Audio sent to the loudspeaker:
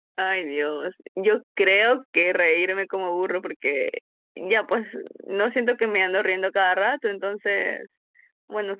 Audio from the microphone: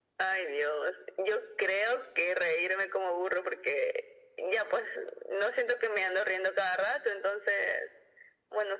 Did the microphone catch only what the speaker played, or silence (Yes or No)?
Yes